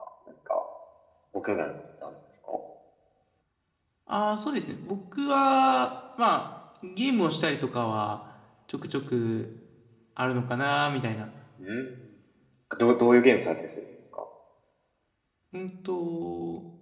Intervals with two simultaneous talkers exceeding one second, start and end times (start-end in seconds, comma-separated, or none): none